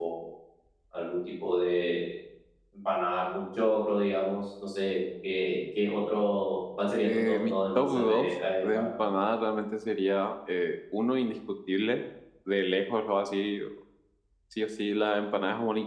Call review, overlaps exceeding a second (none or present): present